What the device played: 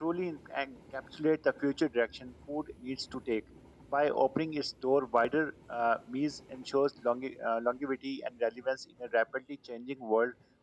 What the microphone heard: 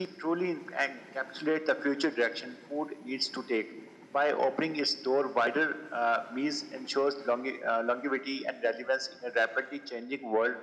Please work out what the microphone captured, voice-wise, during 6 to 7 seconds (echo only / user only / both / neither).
echo only